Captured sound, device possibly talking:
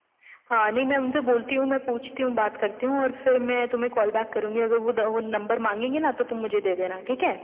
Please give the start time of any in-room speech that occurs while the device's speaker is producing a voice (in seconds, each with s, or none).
none